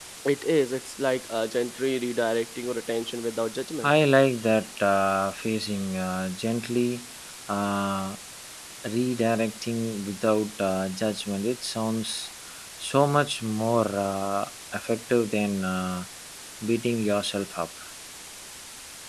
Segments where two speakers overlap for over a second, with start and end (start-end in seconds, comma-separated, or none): none